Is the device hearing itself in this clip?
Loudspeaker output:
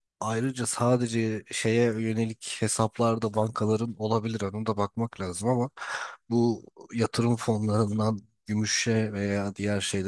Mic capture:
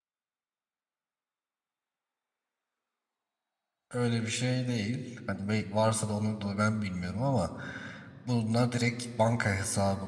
No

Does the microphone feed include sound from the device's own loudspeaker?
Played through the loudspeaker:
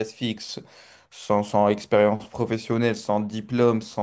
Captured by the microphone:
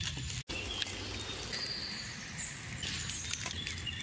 No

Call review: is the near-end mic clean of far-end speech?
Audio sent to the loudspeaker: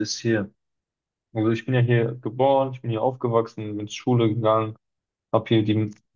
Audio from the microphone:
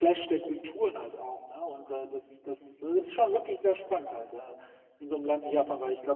Yes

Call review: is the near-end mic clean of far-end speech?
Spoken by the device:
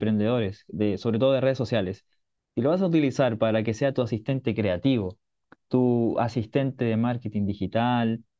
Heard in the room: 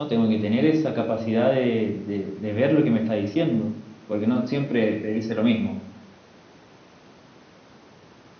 Yes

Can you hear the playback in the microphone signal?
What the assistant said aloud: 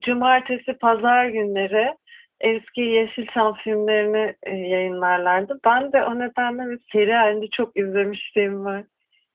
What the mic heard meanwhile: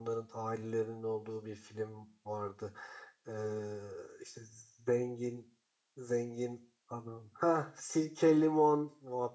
No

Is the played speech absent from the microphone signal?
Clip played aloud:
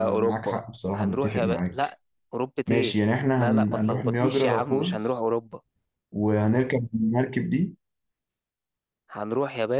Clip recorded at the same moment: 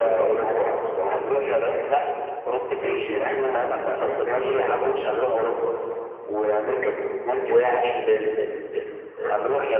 No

